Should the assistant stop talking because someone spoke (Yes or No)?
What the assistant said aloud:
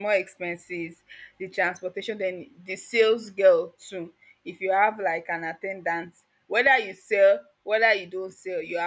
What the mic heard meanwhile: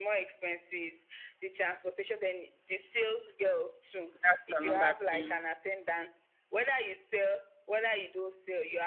Yes